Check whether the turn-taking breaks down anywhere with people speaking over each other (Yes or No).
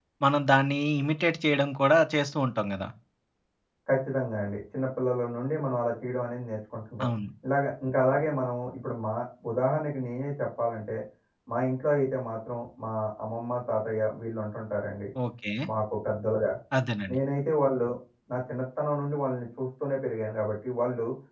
No